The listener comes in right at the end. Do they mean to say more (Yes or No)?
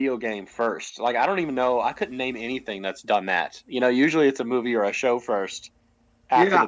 Yes